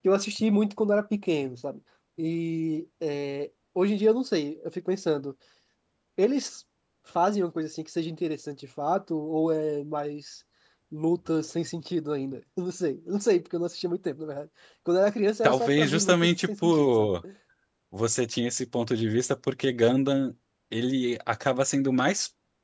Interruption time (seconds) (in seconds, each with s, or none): 15.4 s